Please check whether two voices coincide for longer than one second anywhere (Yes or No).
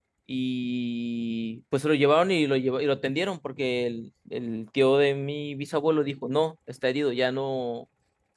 No